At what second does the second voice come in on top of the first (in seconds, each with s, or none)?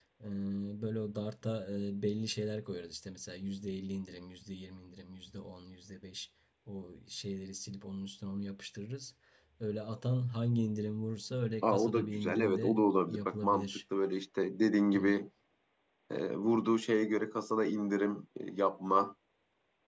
11.6 s